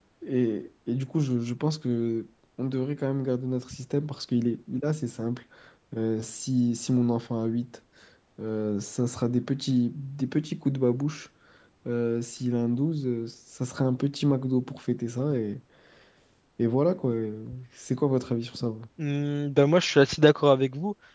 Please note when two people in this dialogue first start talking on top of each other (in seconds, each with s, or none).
none